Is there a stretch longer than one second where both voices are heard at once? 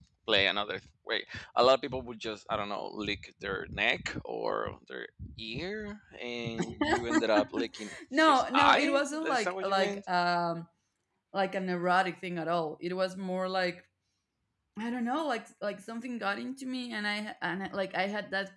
Yes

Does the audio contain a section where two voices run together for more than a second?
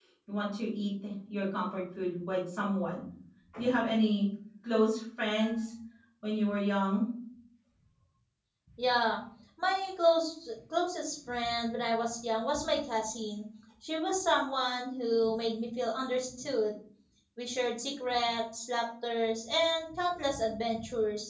No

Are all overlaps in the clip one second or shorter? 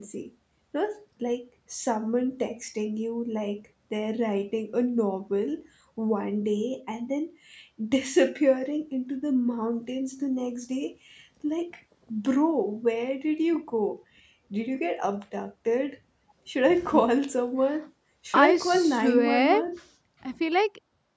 No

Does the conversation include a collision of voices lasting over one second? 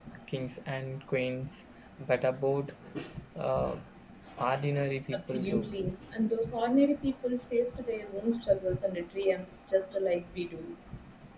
No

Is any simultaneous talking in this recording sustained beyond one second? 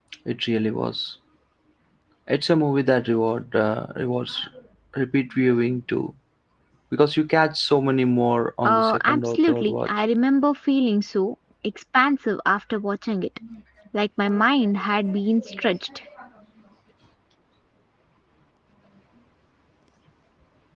Yes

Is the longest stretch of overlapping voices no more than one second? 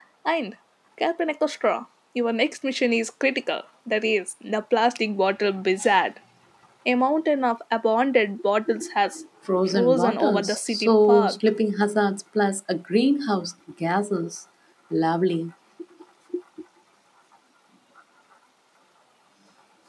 No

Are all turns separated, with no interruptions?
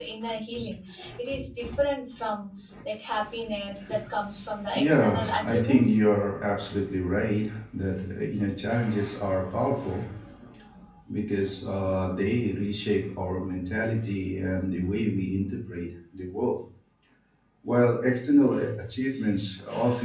No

